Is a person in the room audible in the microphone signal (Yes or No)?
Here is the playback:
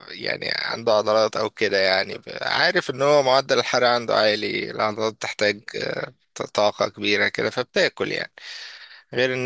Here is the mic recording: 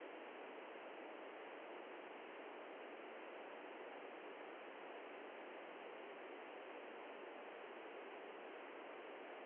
No